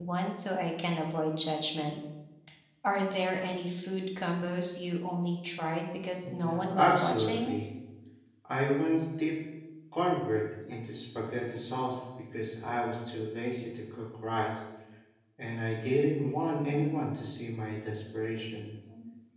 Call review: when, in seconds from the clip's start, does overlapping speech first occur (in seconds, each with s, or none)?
6.3 s